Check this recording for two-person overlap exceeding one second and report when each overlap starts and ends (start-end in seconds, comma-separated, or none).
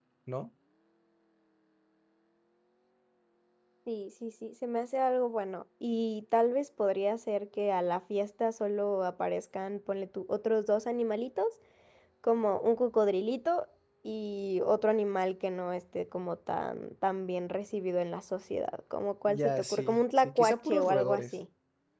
19.3-21.4